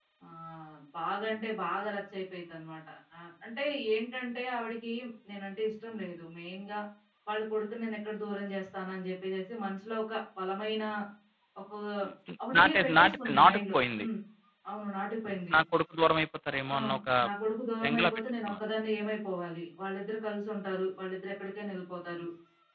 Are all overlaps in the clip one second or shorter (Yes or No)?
No